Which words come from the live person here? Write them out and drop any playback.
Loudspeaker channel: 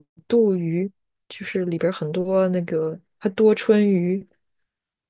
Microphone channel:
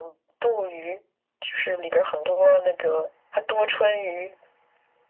none

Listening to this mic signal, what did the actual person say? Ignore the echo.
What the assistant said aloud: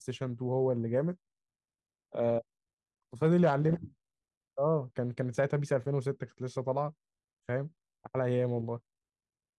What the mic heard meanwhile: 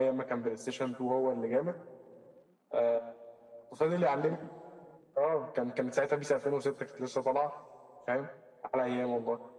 none

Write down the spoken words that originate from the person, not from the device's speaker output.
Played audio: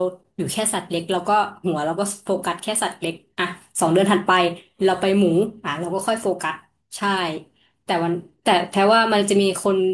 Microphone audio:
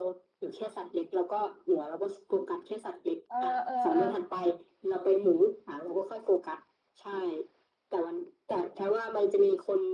เออเออเออ

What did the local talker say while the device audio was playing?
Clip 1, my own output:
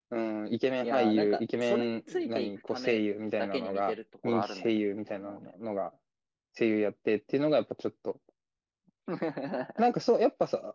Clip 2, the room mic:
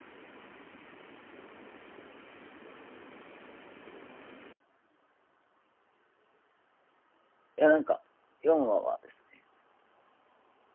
や、なんか、4話はですね、

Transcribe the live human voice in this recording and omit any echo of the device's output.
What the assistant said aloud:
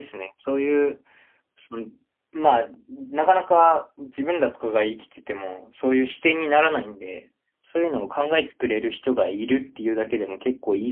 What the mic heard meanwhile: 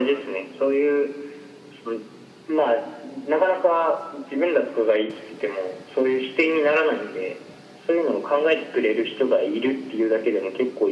none

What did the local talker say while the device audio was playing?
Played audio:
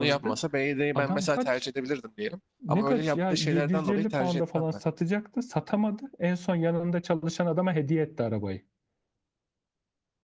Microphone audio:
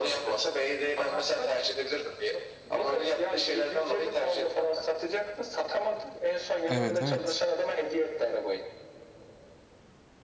Evet evet.

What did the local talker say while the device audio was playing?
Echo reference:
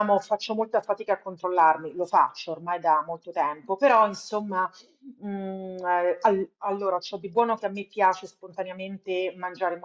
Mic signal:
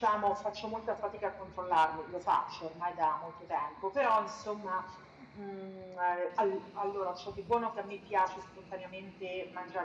none

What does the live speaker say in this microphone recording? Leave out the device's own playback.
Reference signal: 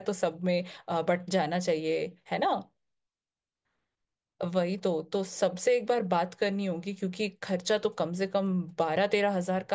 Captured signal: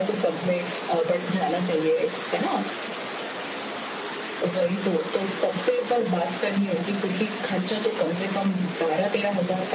none

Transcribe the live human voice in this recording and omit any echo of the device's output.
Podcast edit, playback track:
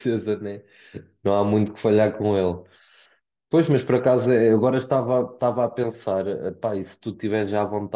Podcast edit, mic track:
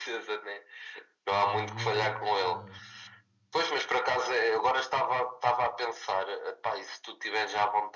Jimi Hendrix, eh,

